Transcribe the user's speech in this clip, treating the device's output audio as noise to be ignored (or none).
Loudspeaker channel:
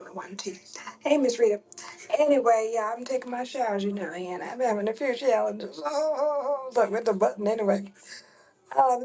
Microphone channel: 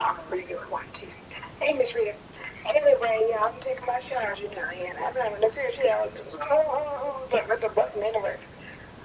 none